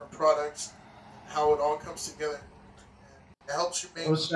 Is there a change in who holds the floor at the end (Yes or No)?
No